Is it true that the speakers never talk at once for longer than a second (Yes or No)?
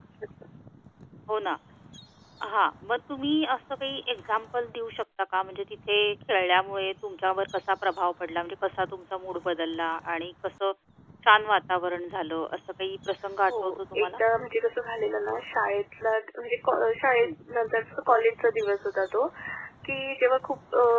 Yes